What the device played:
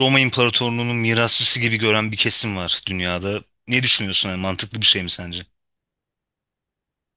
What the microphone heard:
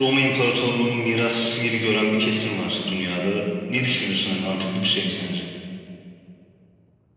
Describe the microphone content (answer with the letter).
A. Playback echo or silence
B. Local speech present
A